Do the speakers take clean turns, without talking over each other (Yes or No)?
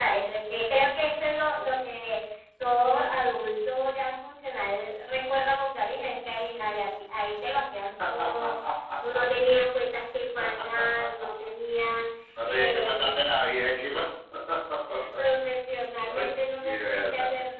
No